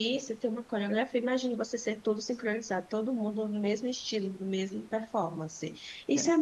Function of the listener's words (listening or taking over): listening